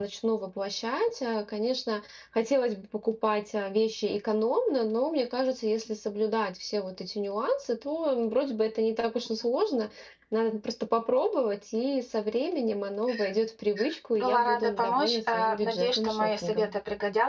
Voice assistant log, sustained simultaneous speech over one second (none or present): present